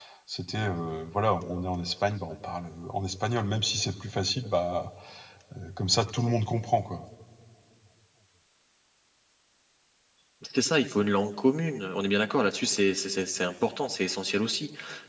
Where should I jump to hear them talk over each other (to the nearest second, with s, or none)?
none